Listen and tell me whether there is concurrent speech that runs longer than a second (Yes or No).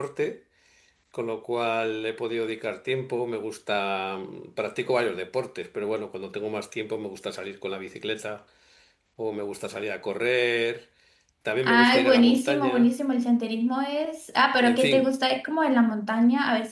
Yes